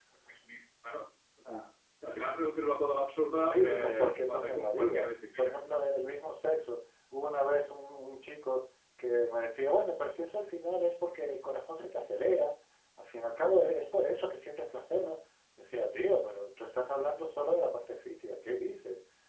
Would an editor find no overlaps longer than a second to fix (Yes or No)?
No